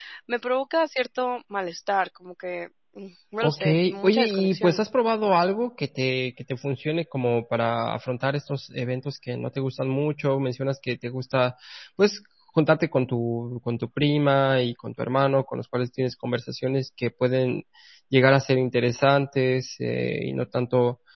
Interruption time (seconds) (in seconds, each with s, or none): 3.4 s